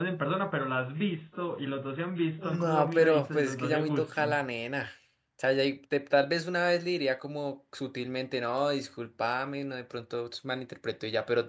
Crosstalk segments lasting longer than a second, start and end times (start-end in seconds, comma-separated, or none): 2.4-4.4